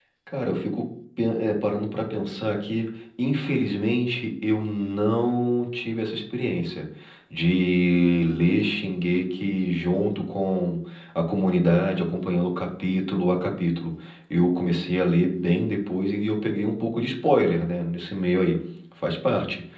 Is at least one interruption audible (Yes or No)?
No